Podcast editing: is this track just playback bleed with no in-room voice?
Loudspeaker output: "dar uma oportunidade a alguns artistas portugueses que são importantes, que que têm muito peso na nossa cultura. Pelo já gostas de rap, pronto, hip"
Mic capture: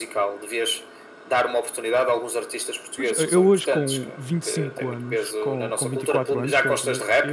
No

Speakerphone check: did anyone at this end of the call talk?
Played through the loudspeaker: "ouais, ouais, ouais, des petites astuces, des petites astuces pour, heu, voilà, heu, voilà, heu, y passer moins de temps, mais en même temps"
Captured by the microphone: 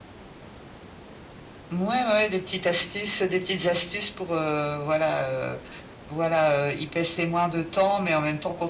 No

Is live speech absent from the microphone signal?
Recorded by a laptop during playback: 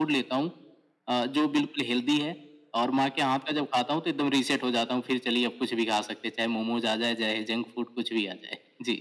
Yes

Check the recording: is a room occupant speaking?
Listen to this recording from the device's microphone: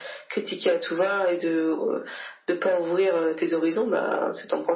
No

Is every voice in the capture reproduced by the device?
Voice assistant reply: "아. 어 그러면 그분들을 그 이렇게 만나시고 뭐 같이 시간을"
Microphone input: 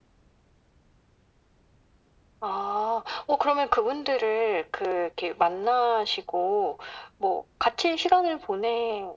Yes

